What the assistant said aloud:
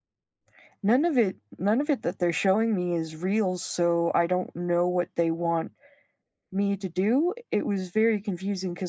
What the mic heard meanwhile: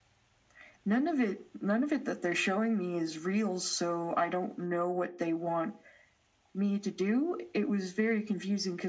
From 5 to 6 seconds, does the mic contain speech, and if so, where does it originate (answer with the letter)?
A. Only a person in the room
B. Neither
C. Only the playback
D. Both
C